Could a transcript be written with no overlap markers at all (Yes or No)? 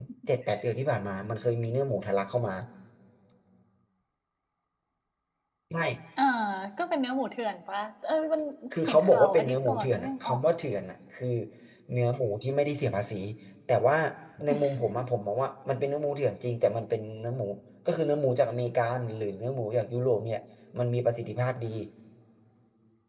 No